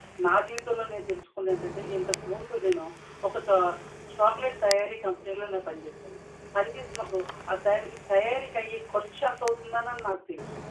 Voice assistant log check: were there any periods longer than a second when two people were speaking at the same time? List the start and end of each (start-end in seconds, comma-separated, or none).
none